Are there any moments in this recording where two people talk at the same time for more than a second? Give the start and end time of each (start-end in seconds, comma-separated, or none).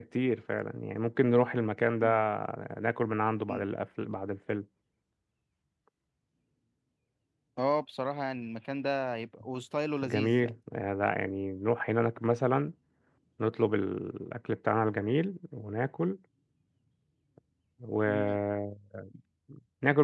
none